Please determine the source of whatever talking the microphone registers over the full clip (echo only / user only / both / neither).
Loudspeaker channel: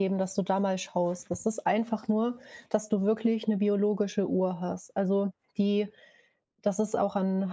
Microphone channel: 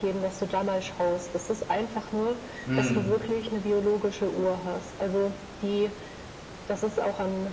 both